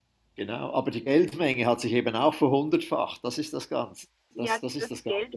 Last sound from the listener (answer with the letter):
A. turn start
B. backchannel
A